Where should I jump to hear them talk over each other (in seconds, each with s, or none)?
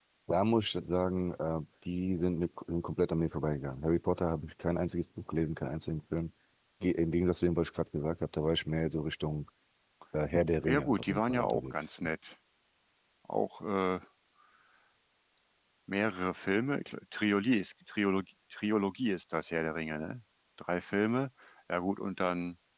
10.7 s